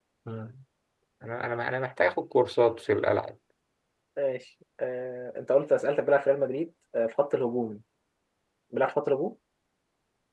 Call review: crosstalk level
none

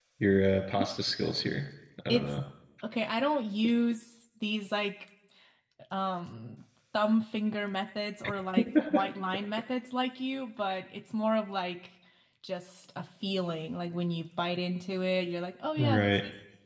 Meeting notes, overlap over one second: none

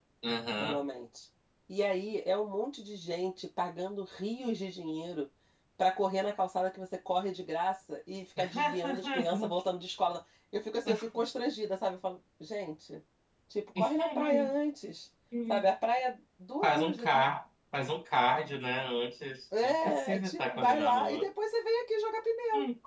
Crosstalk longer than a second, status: present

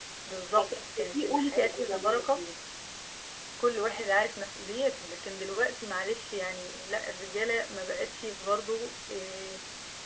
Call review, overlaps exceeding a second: present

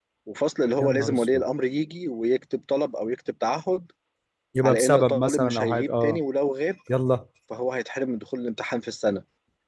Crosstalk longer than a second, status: present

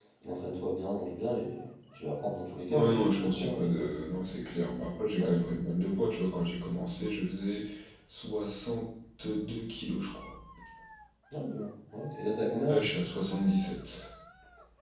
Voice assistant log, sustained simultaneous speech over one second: present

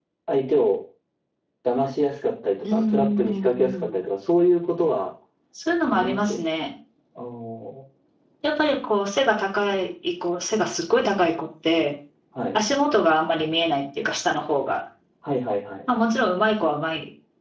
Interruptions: present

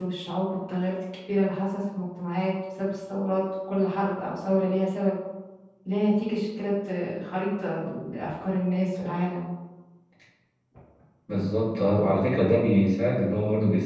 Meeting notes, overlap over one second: none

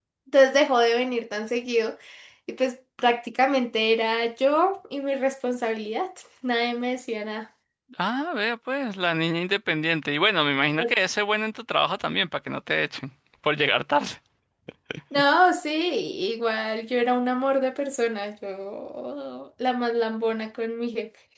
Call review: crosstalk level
none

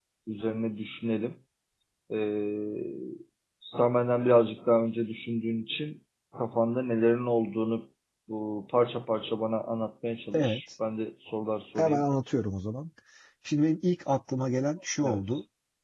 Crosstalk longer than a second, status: none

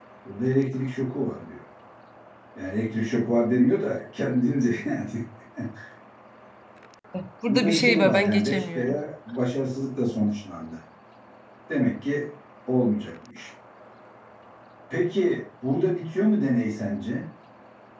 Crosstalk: present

